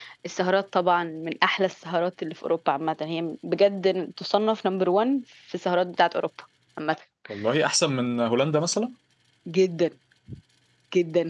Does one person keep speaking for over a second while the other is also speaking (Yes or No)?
No